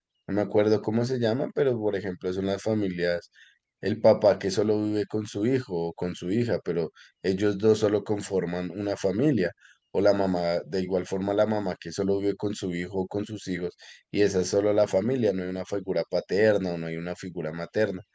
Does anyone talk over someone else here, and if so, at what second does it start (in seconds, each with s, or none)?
none